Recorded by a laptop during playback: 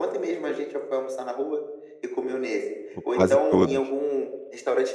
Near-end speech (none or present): present